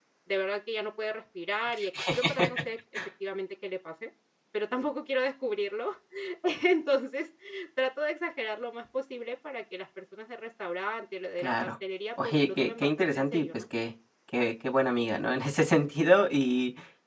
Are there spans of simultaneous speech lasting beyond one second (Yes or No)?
Yes